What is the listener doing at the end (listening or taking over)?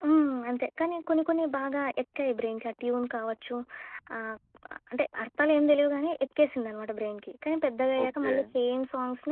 listening